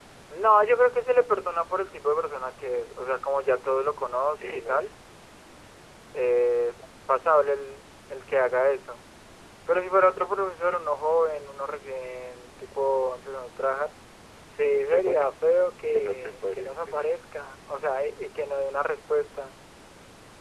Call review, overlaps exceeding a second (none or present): present